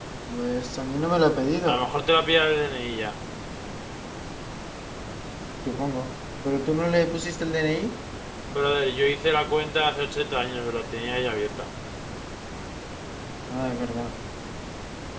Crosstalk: none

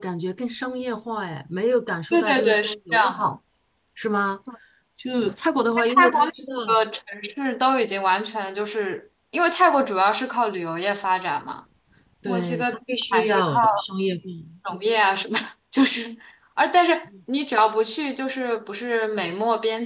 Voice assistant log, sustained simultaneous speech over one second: present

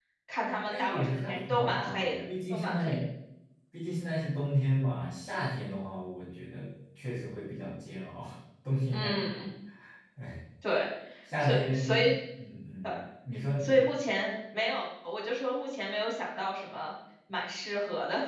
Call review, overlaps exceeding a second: present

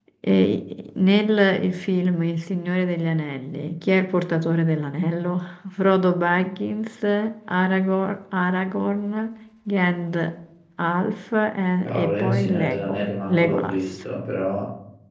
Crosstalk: present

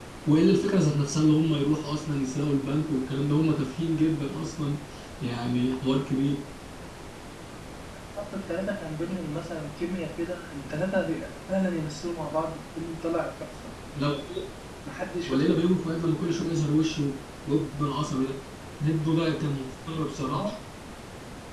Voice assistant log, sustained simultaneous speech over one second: none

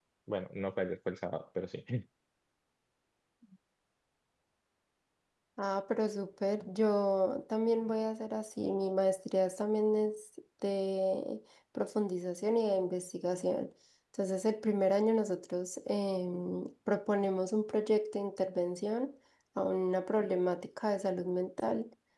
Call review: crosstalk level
none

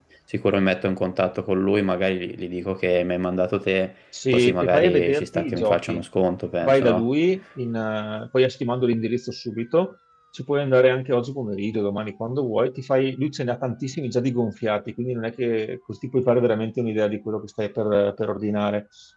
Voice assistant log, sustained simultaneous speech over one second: present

